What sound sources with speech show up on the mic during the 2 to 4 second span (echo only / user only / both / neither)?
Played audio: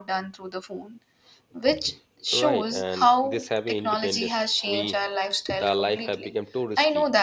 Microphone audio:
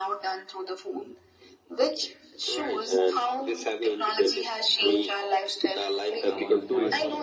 echo only